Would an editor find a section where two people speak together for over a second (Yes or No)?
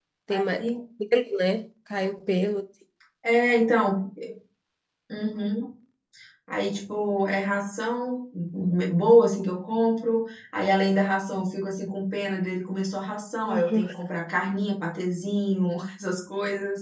No